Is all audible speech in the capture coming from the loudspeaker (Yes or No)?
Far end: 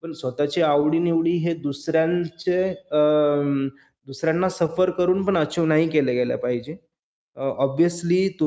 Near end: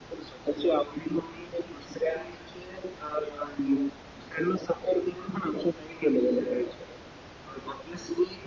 Yes